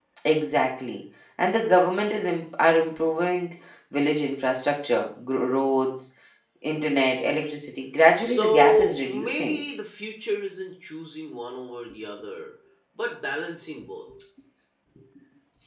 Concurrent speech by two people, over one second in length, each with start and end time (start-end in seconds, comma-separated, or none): 8.2-9.6